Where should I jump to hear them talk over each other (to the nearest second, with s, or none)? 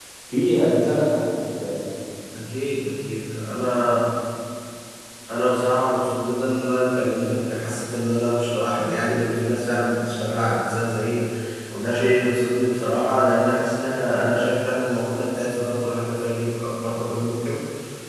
none